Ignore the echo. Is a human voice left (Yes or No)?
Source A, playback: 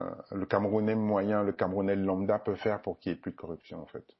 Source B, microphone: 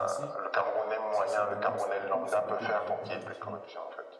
Yes